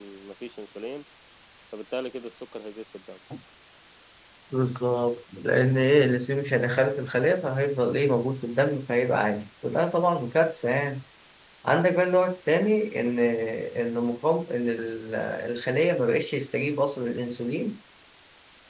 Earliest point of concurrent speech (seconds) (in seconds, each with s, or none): none